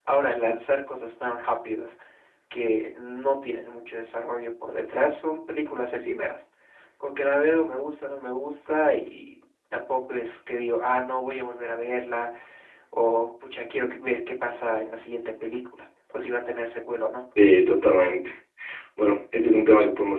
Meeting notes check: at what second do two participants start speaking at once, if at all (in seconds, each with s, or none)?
none